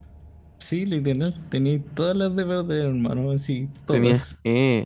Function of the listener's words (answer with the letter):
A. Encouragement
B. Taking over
B